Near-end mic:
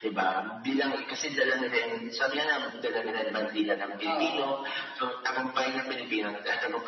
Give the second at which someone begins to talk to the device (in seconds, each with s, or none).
4.0 s